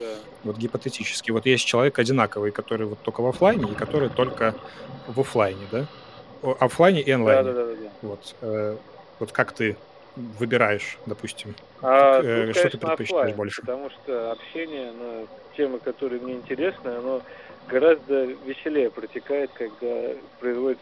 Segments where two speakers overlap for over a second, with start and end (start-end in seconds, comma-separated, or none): 12.0-13.7